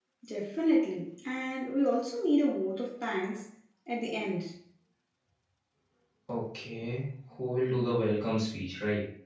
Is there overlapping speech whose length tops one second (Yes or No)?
No